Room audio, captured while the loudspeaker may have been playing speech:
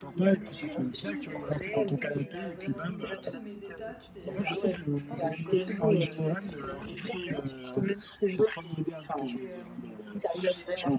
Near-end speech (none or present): present